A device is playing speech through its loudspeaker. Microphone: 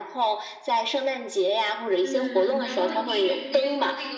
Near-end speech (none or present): present